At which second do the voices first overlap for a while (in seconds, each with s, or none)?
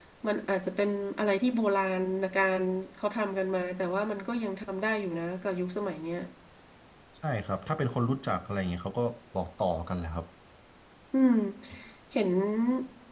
none